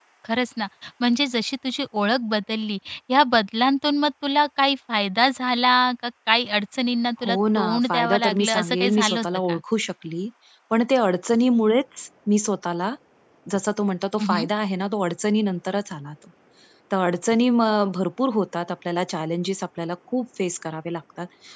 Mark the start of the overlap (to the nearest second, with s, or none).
7 s